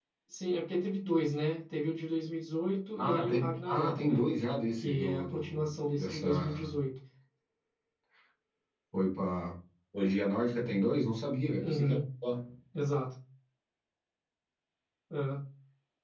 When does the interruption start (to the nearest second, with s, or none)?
3 s